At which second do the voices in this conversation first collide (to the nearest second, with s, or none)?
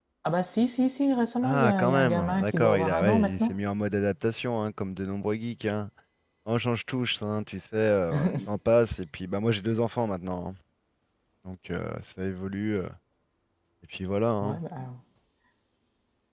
1 s